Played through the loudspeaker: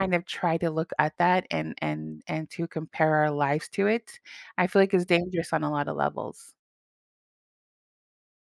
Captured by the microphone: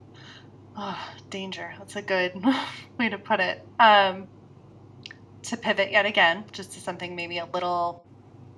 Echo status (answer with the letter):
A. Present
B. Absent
B